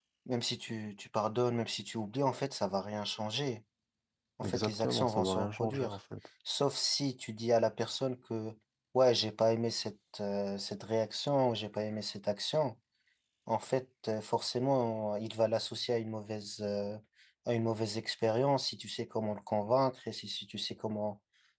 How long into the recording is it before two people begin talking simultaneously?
4.5 s

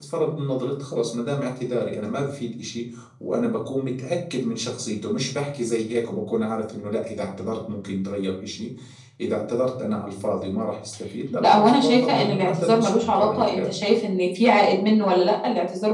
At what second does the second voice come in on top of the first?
11.4 s

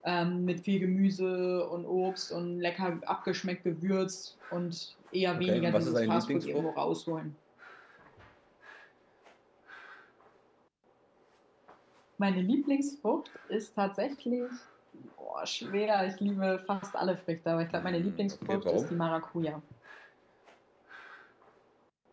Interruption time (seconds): 5.3 s

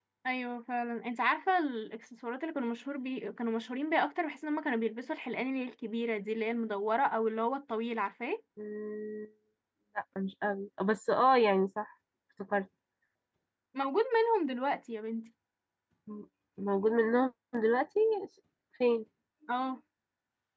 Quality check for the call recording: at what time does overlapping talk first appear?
none

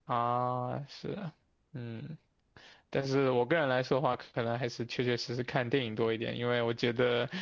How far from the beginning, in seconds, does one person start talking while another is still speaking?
none

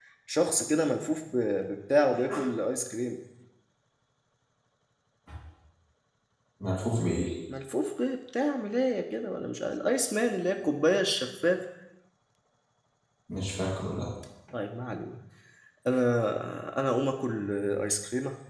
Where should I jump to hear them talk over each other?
none

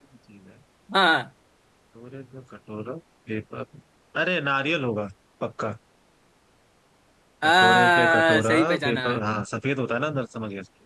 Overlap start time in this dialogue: 7.4 s

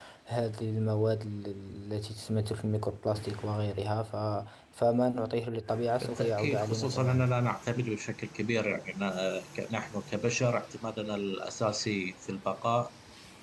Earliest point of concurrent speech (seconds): 6.0 s

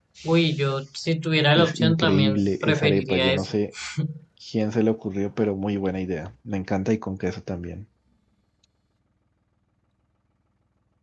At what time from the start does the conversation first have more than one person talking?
1.5 s

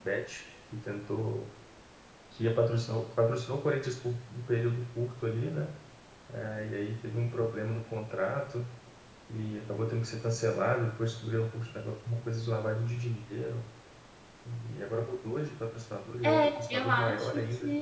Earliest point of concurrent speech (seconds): 16.2 s

